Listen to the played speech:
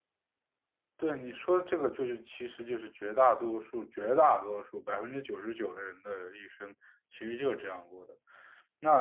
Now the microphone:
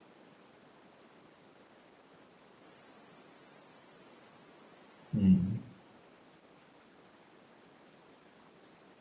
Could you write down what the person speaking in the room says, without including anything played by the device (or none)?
嗯，